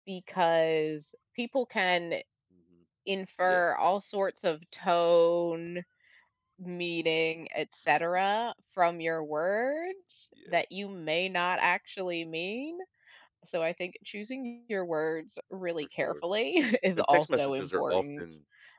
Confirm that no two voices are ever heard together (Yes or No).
No